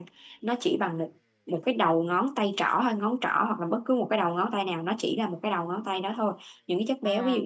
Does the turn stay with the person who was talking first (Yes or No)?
Yes